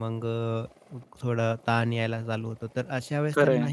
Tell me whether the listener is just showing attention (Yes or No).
Yes